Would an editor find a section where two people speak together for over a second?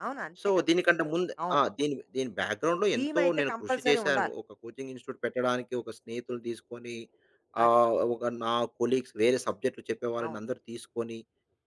Yes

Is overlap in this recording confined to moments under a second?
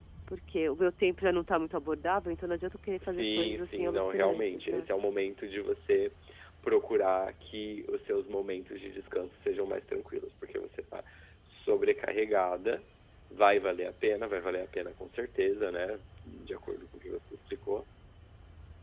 No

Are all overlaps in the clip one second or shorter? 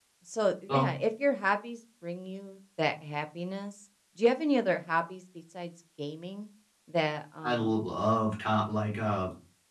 Yes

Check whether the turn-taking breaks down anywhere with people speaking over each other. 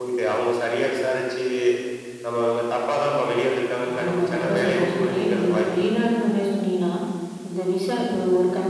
Yes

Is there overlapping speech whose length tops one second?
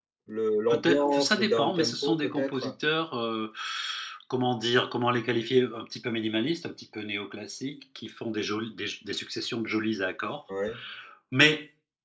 Yes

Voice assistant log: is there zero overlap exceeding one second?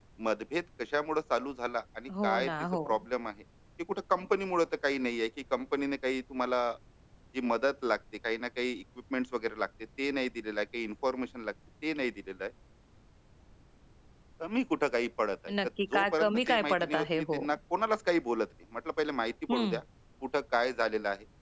No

